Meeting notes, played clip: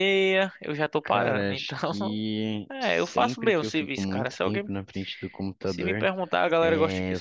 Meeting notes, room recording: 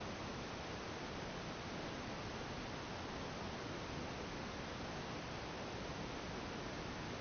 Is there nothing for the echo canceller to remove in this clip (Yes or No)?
Yes